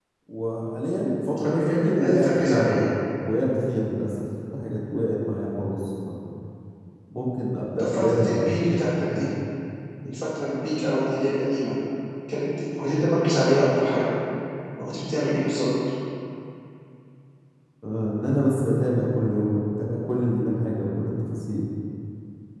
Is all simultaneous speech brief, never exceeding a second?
No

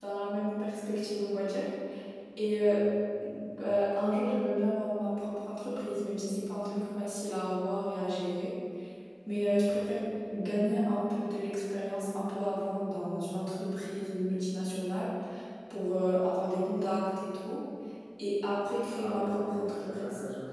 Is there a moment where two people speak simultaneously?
Yes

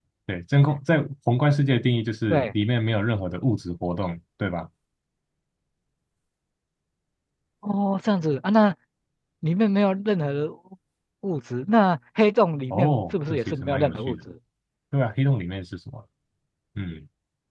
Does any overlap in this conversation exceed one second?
Yes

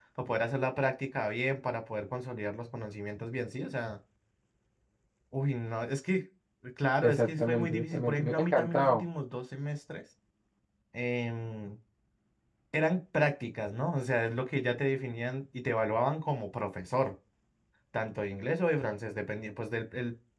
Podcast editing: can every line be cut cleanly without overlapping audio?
No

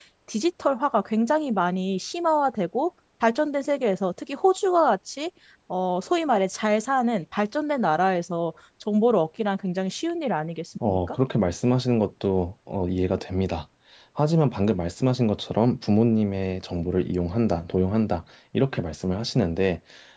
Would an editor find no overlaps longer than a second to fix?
Yes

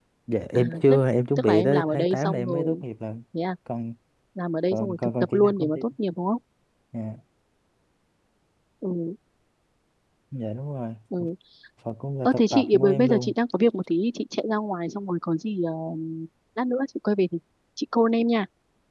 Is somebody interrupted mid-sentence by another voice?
Yes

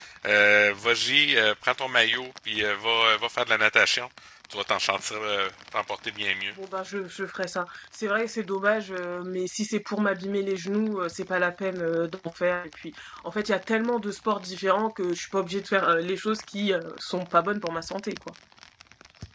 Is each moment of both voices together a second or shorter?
Yes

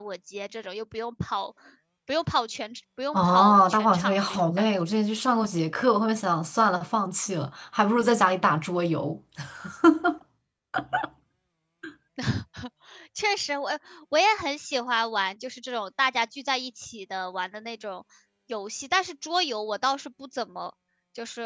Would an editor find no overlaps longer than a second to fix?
No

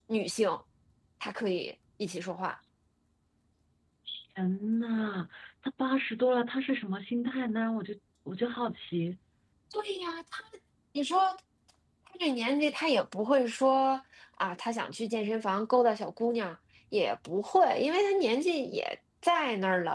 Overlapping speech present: No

